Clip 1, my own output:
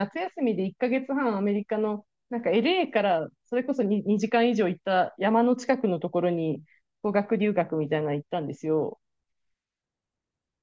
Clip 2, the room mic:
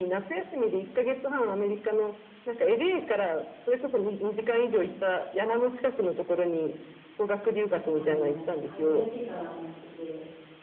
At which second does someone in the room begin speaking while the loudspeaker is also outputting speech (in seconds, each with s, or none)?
7.9 s